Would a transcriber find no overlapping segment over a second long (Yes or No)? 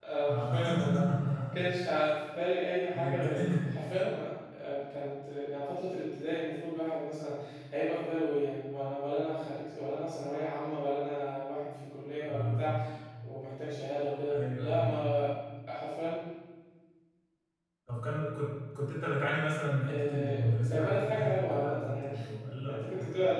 No